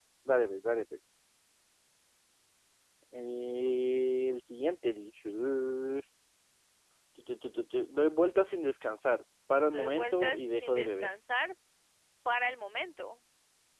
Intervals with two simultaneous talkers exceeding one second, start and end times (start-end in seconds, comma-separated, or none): 9.7-11.1